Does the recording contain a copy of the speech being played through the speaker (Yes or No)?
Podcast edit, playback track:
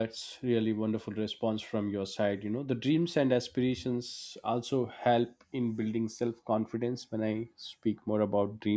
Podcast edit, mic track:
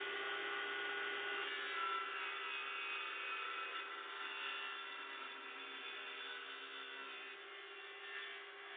No